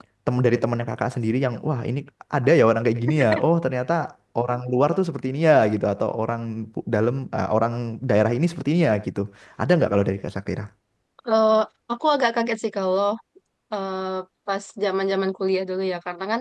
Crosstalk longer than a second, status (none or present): none